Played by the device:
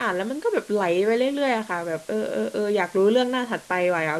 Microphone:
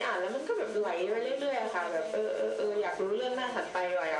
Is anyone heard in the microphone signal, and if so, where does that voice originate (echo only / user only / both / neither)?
both